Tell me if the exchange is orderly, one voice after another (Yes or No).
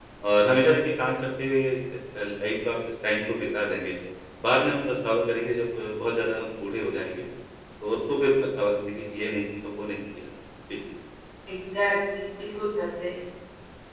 Yes